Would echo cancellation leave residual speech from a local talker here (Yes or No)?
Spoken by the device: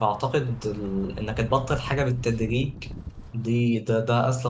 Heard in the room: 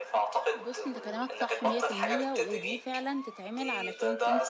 Yes